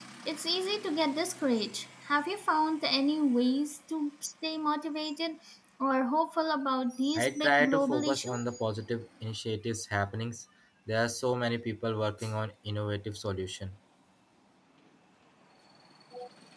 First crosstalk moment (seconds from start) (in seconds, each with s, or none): 7.2 s